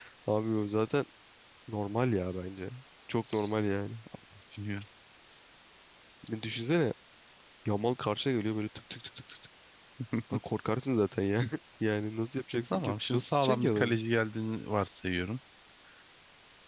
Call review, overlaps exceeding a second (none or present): present